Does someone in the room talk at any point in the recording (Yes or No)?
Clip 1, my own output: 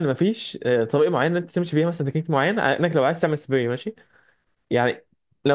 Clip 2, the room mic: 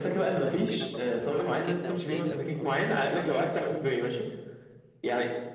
Yes